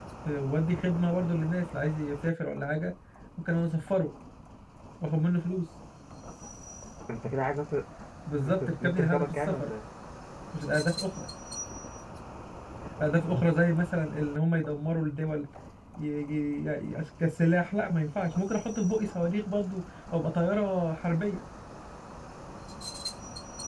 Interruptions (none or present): present